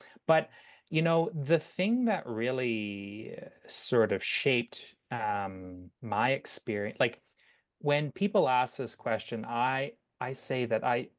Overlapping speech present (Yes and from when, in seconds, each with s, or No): No